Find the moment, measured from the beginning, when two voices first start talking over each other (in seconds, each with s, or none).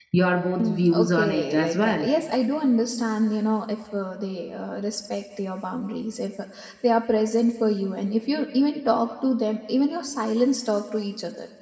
0.6 s